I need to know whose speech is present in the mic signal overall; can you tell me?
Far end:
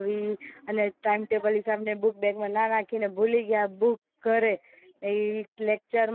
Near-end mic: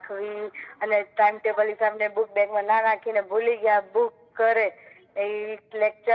echo only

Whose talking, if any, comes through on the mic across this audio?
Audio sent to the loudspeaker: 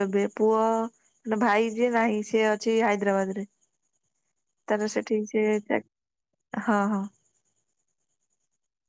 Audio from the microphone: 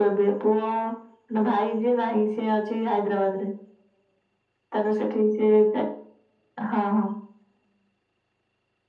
echo only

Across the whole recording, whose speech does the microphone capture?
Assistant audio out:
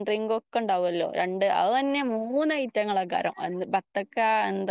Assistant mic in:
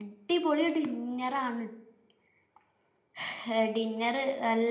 user only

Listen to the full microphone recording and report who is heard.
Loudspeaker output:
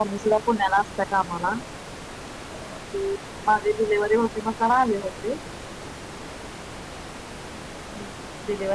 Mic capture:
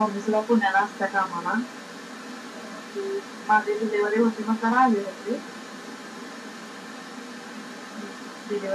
echo only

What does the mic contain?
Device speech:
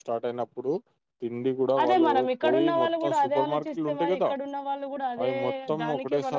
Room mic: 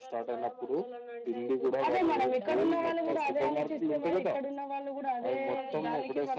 both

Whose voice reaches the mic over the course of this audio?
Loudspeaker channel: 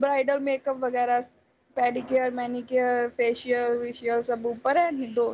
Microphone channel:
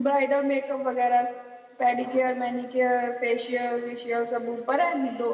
echo only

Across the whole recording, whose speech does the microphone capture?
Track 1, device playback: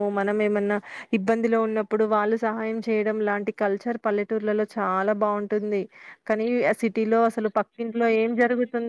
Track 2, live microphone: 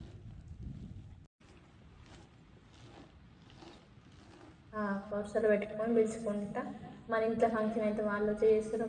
user only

